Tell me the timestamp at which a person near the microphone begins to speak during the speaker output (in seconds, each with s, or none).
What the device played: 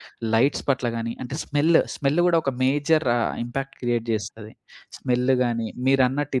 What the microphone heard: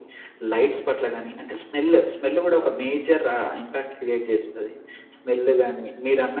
2.6 s